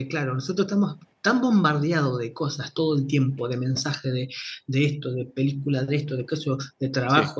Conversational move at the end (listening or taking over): listening